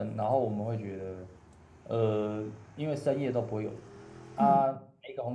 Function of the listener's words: listening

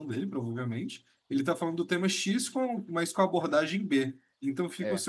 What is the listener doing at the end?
listening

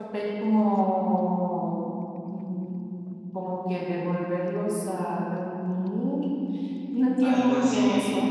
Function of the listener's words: taking over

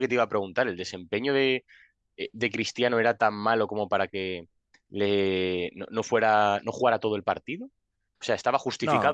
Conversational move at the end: listening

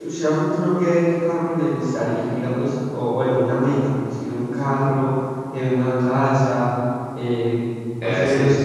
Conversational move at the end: taking over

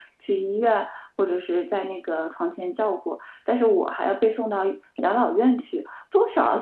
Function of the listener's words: listening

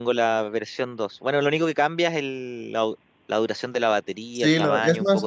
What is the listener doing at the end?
taking over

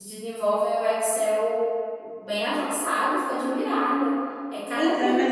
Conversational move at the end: taking over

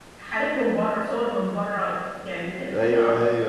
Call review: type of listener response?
taking over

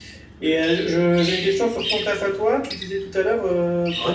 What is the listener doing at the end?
listening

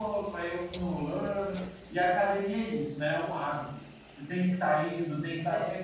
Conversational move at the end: listening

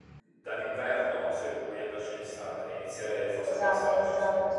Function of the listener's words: taking over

